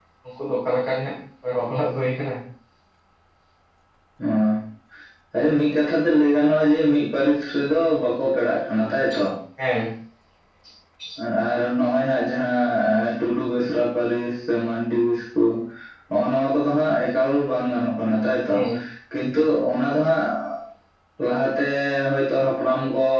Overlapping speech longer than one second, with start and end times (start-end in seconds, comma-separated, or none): none